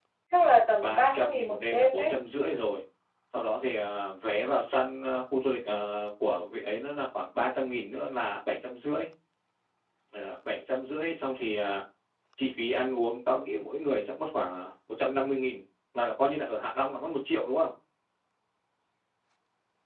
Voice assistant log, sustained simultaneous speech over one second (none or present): present